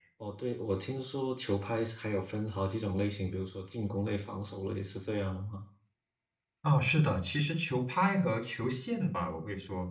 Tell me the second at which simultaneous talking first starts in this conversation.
none

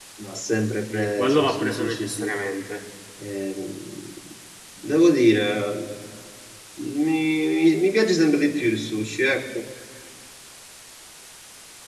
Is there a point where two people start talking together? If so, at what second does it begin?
1 s

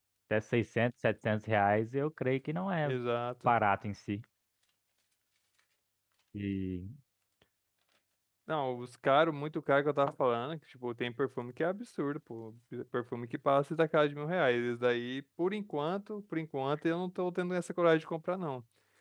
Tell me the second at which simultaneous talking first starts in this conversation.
none

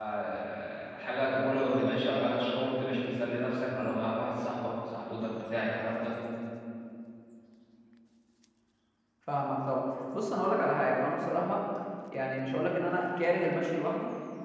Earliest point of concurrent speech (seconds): none

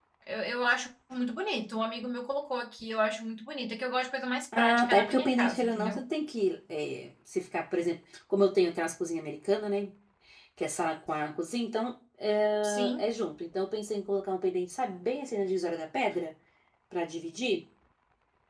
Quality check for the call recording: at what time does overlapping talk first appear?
5 s

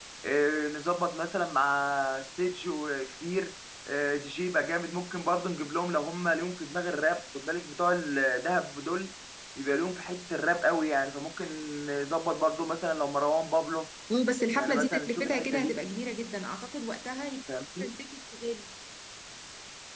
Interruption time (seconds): 15 s

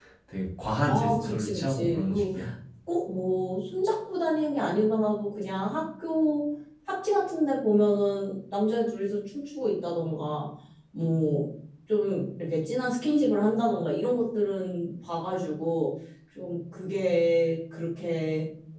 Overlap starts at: 1 s

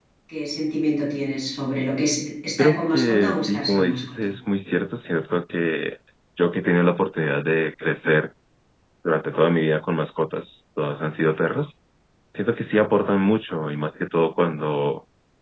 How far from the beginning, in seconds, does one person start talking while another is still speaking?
3 s

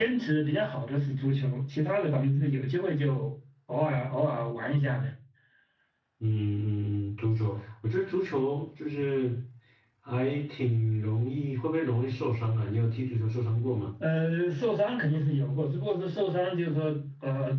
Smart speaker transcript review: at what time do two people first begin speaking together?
none

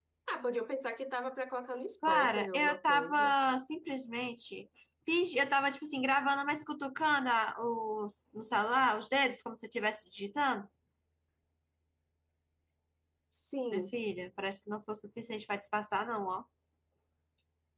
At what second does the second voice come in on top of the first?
2 s

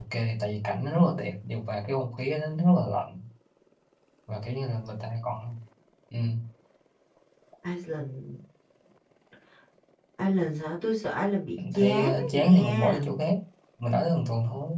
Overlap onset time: 12 s

